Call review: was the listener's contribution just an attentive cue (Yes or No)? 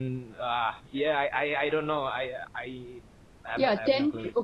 No